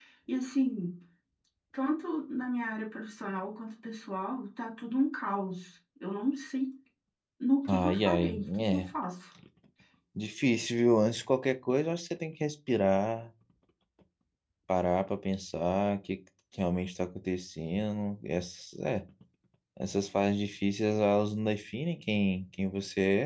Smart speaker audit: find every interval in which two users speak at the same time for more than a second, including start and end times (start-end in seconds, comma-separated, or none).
7.7-8.9